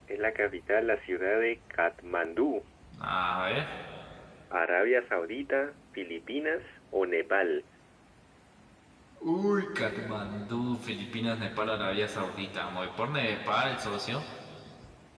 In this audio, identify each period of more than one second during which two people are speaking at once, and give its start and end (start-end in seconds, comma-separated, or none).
none